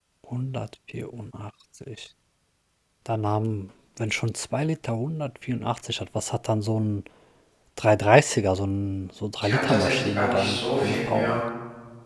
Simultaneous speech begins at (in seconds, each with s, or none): 9.4 s